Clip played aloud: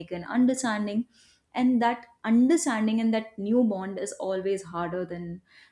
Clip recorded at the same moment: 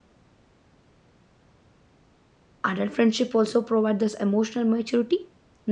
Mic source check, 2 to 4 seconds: user only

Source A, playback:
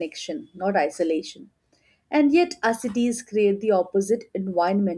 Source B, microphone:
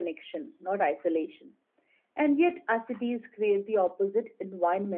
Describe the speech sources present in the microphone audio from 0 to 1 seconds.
echo only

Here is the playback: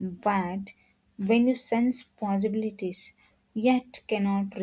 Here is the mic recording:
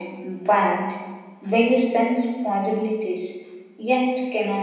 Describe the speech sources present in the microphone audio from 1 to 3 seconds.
echo only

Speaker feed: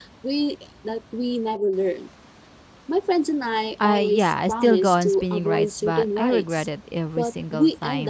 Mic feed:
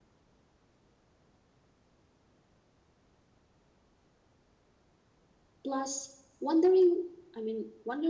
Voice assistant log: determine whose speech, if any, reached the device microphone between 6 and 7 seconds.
user only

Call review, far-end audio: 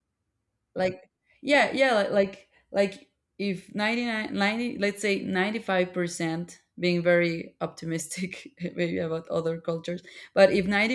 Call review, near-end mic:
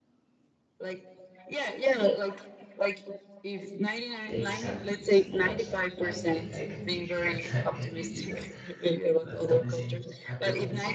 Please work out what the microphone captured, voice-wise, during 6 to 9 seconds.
both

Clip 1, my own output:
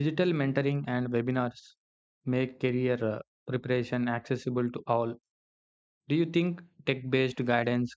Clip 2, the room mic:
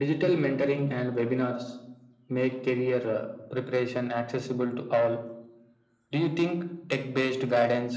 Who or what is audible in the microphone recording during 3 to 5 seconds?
echo only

